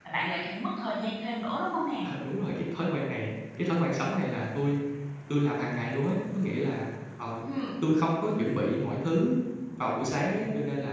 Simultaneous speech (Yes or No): No